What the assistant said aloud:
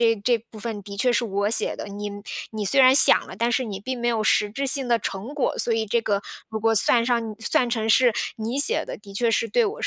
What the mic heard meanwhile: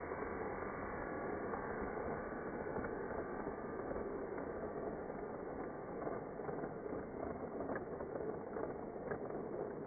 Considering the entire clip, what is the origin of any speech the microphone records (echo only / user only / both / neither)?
neither